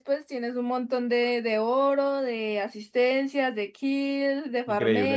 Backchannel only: No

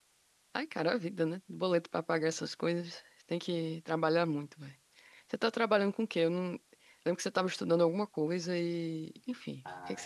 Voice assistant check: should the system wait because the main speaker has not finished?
No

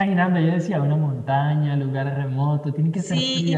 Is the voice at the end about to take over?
Yes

